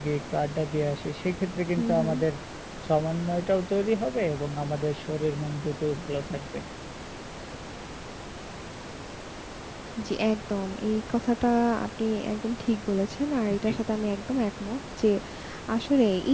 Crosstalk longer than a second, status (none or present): none